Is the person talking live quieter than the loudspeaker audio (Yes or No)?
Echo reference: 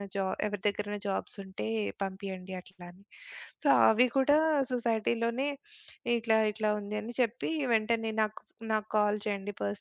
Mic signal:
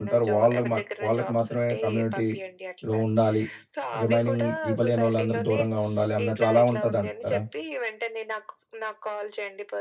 No